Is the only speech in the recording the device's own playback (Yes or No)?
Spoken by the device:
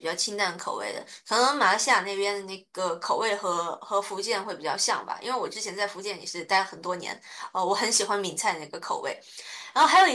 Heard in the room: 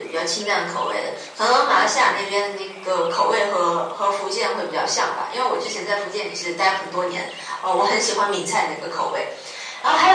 Yes